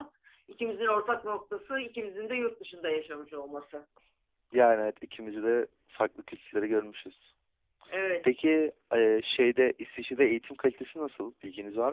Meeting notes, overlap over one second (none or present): none